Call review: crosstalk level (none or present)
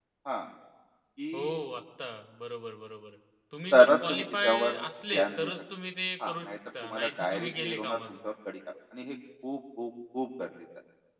present